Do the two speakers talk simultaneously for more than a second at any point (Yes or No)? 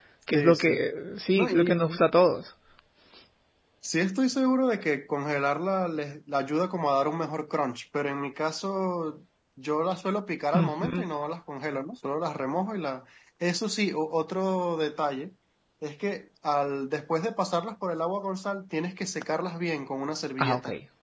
No